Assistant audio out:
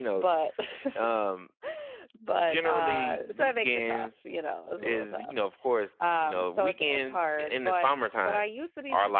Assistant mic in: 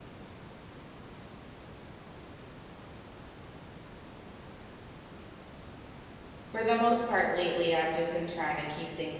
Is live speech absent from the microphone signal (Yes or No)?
No